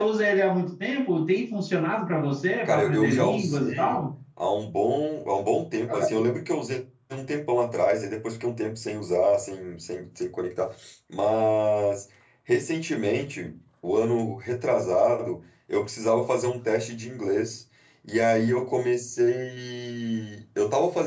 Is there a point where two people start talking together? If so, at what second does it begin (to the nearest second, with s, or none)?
3 s